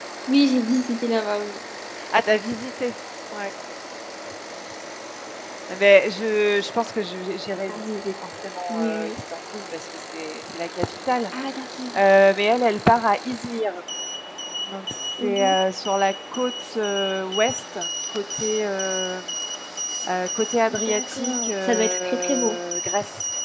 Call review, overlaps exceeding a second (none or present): present